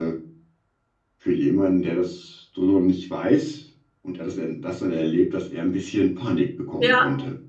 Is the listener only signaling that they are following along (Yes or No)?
No